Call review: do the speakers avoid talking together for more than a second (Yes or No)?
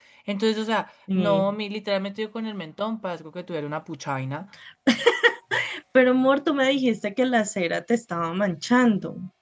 Yes